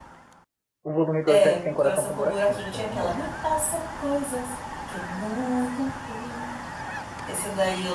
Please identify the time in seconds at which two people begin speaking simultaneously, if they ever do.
1.3 s

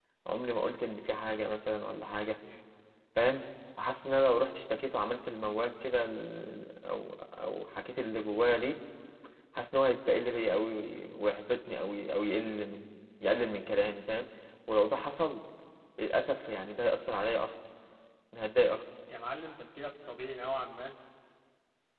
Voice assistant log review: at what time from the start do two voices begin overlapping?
none

